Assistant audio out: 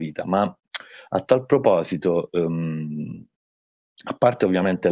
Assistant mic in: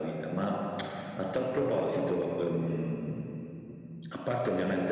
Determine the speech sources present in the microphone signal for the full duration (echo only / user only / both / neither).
echo only